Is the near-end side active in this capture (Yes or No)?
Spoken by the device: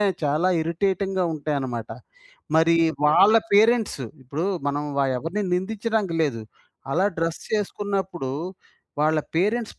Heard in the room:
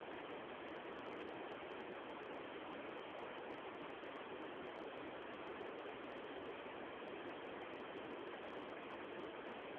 No